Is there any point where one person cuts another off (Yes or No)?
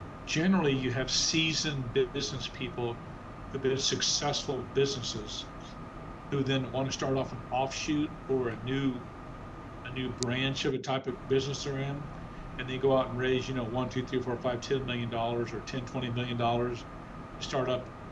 No